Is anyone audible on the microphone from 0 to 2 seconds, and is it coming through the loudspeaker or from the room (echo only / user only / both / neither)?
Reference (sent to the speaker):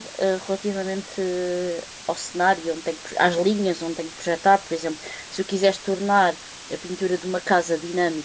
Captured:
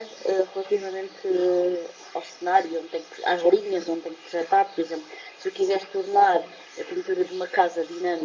echo only